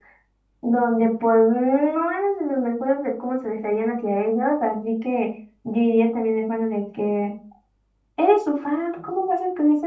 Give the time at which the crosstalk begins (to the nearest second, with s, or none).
none